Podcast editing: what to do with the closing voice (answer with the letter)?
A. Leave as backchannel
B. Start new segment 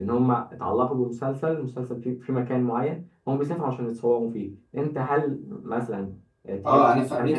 B